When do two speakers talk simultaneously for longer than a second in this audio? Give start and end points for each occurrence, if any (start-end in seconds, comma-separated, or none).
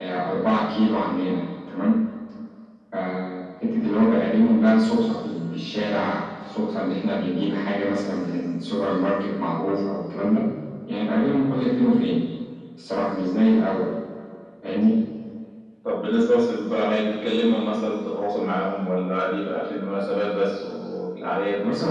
none